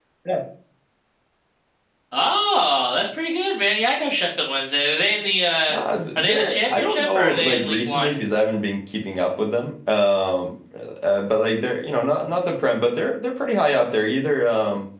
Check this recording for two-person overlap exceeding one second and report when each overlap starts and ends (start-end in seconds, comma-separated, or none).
6.2-8.1